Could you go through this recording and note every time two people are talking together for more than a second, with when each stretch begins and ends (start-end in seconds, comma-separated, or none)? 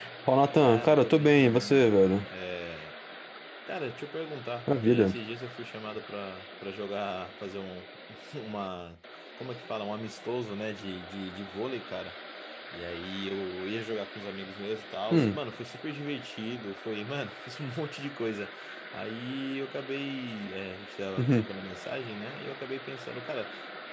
0.6-2.0